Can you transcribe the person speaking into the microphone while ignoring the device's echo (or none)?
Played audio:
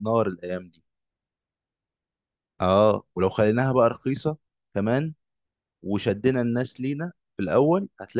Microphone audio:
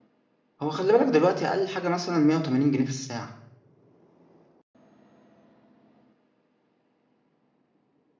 هو خلي بالك دلوقتي أقل حاجة مثلا 180 جنيه في الساعة